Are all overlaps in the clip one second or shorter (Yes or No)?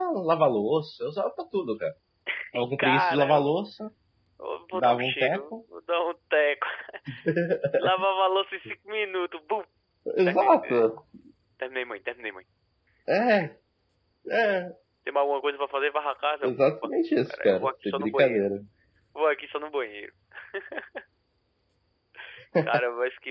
No